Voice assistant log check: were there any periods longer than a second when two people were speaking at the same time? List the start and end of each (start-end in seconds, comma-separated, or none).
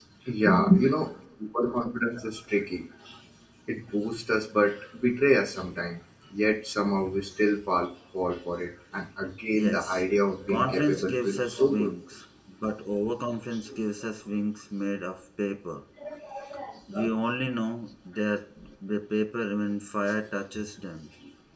10.5-11.9